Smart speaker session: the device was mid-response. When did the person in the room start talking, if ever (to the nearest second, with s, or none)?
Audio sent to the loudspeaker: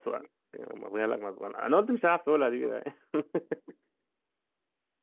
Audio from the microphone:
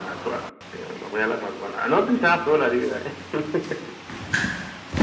none